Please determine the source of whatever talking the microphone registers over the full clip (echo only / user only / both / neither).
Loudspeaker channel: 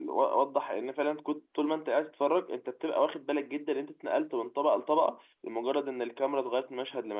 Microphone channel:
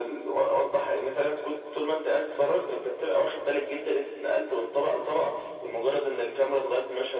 echo only